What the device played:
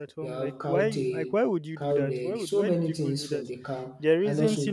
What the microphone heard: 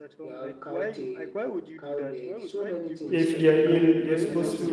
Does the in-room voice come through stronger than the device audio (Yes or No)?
Yes